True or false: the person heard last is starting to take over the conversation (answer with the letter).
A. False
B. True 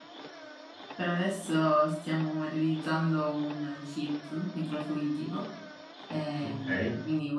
A